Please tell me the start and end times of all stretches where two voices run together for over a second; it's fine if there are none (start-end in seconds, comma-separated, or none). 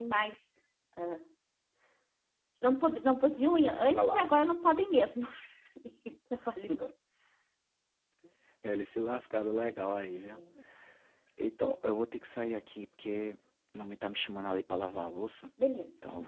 none